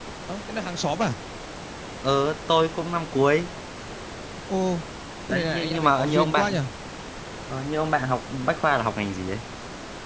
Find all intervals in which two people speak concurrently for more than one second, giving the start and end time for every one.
5.3-6.6

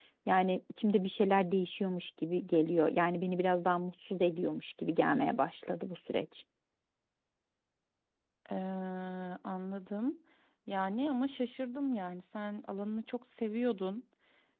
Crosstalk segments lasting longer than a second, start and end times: none

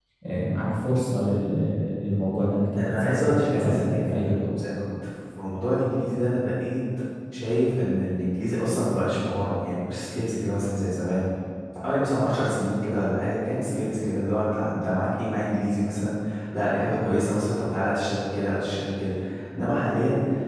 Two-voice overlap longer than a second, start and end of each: 2.8-4.4

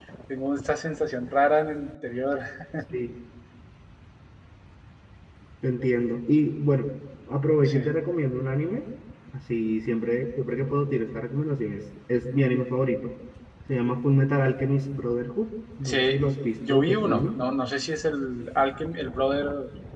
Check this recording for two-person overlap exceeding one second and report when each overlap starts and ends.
15.8-17.4

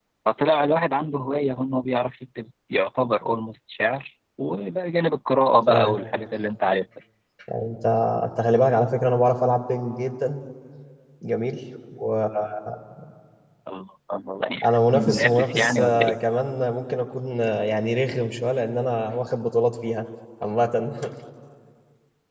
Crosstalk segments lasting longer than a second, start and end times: 14.9-16.1

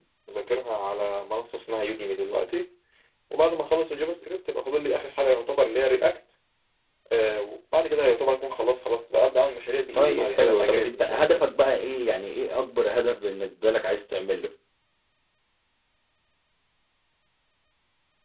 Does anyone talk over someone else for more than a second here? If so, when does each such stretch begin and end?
9.9-11.4

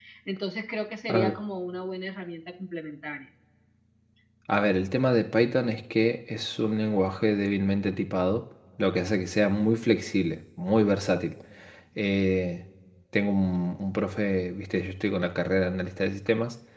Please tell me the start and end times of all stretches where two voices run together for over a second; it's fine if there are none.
none

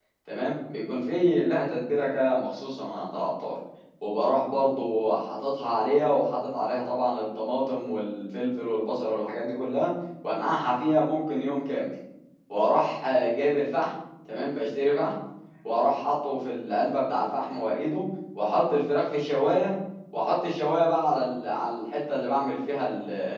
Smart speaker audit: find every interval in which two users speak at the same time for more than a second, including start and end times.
none

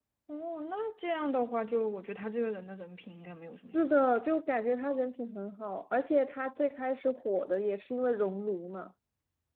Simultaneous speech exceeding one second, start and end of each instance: none

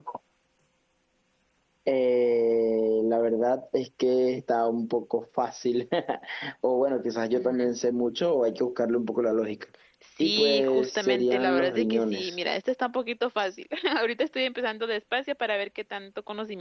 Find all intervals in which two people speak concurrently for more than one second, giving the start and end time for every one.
10.2-12.3

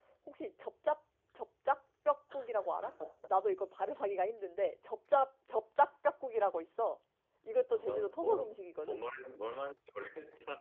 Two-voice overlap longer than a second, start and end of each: 7.7-9.0

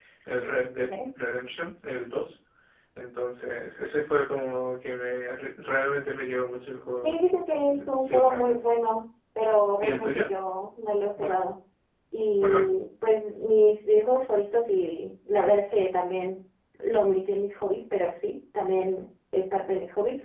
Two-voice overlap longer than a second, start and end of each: 7.0-8.6

